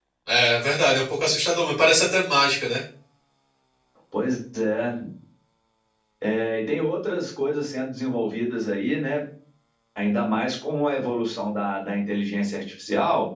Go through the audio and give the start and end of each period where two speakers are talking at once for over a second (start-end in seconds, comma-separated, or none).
none